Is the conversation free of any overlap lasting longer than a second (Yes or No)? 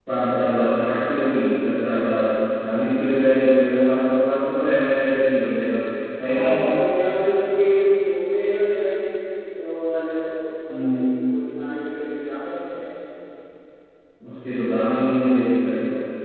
Yes